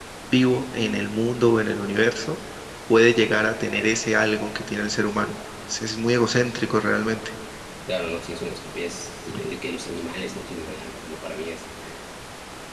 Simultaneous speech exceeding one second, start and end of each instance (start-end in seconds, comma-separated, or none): none